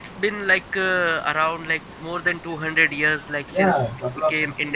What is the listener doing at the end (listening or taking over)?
taking over